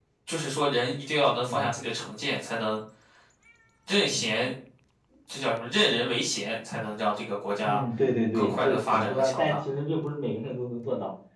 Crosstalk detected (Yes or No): Yes